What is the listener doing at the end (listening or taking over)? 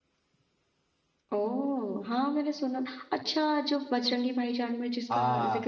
taking over